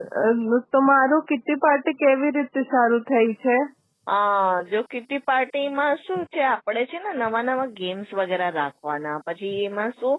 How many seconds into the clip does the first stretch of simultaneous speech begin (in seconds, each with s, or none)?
none